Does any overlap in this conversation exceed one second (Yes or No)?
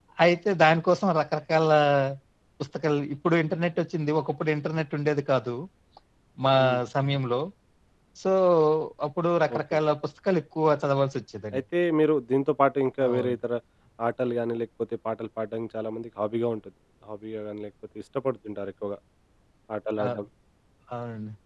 No